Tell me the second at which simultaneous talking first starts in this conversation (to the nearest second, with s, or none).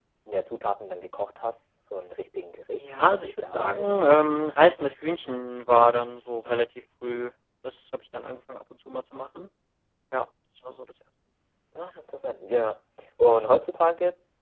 3 s